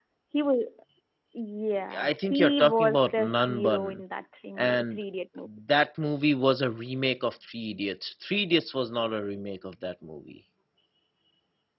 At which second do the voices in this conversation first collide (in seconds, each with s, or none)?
2.0 s